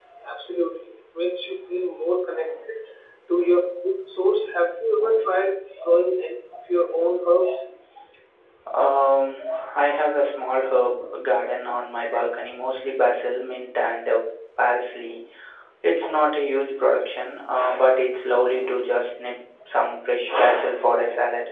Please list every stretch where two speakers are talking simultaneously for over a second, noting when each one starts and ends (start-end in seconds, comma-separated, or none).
none